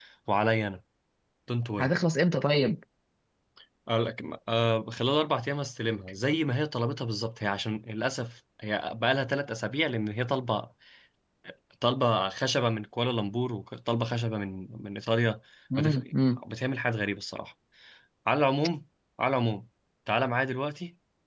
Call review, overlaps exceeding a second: none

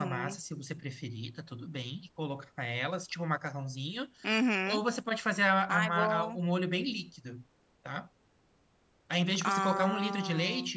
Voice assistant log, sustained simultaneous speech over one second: present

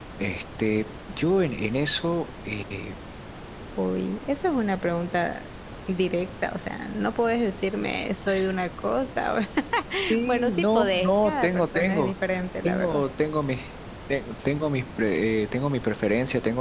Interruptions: present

